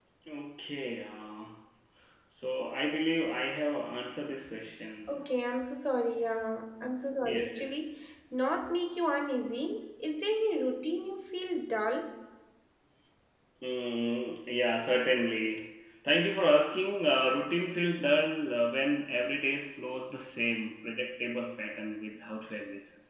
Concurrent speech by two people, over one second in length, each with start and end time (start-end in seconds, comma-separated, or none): none